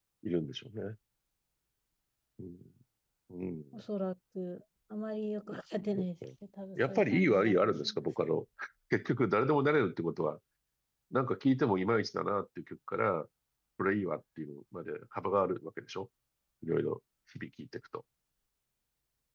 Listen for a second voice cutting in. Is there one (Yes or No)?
Yes